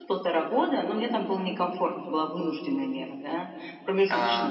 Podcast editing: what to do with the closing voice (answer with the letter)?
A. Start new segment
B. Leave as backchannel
B